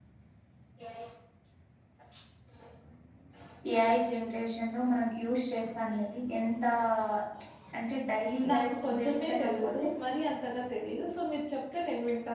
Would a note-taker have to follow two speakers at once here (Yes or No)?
Yes